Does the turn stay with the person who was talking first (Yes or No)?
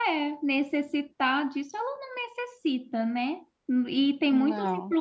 Yes